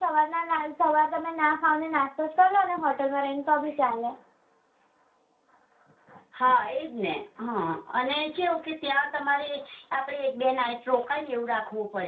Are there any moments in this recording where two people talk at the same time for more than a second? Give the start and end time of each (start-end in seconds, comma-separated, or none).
none